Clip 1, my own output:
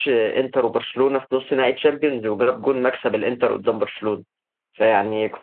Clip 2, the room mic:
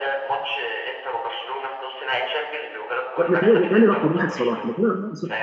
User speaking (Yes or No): Yes